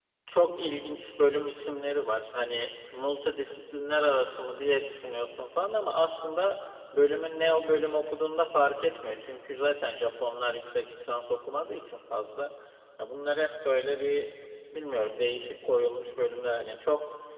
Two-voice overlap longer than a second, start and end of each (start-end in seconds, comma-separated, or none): none